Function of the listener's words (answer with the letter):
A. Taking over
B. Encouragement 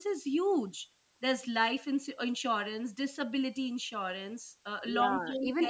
A